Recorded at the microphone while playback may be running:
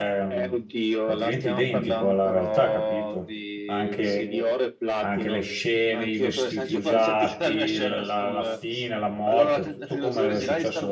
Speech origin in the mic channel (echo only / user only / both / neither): both